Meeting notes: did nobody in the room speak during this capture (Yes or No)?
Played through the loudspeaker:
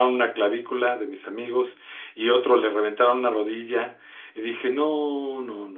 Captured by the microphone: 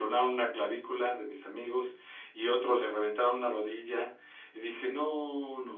Yes